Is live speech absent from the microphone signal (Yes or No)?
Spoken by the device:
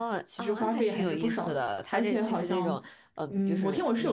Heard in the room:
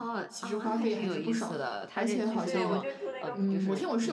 No